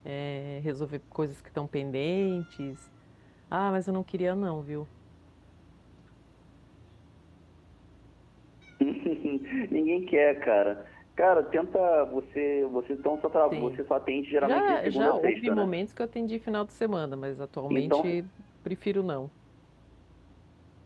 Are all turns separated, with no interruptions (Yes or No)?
No